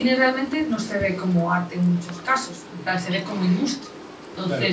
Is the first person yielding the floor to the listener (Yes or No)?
Yes